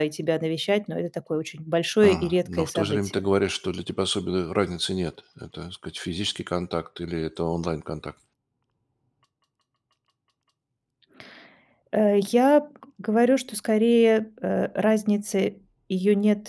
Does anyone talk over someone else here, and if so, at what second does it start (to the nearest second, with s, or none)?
2 s